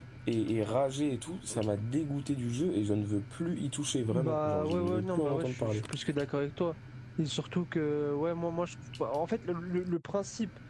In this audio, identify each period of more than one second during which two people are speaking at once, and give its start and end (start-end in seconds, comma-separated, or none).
4.1-5.8